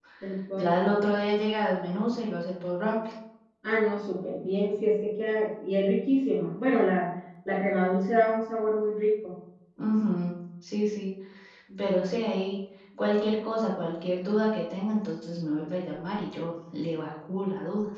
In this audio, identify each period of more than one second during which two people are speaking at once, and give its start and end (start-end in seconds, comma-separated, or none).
none